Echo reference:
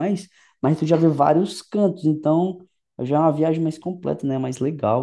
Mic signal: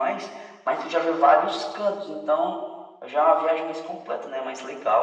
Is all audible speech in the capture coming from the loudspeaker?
Yes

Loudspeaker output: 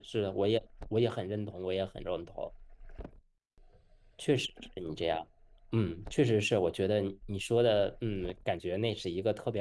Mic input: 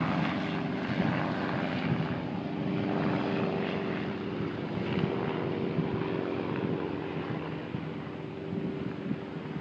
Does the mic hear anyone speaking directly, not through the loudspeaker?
No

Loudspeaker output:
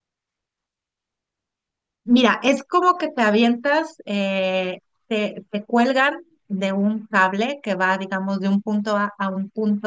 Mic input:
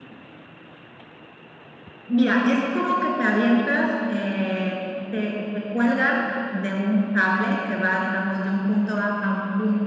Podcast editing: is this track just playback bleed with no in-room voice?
Yes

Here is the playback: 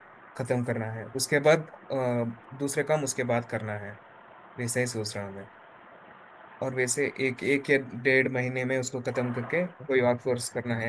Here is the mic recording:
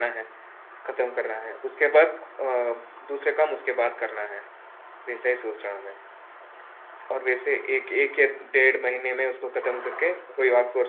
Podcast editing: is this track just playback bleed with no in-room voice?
Yes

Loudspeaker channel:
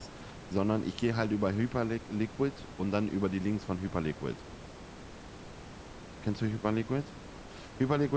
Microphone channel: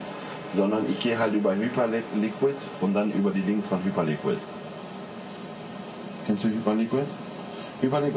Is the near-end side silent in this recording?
Yes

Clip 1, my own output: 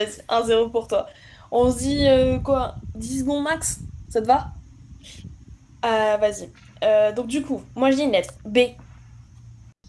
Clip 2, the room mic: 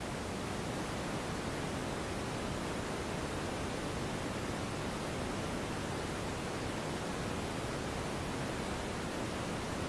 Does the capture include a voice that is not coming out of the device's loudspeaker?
No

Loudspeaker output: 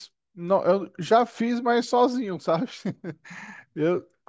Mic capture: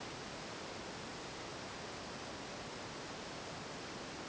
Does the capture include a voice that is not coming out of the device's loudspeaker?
No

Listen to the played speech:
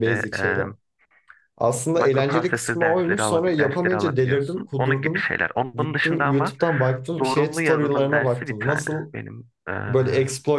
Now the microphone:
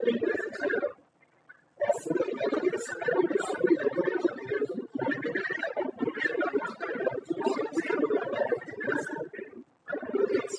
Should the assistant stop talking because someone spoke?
No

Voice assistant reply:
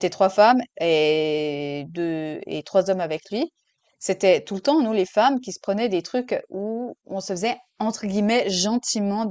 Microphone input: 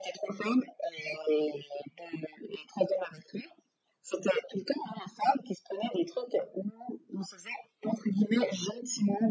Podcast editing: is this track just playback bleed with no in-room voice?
Yes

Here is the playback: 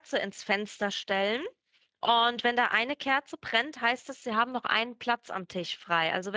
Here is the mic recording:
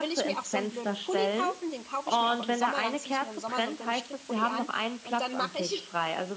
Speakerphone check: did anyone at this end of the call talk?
Yes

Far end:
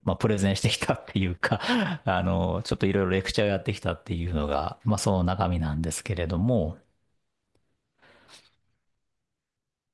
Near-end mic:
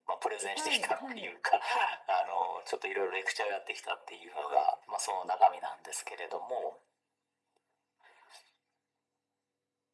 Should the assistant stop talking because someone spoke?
Yes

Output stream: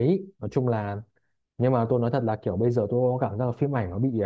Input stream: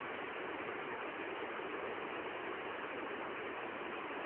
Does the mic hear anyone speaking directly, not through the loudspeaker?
No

